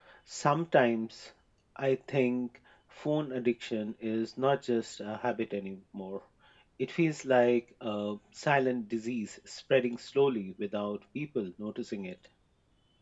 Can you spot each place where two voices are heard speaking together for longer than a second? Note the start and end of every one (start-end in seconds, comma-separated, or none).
none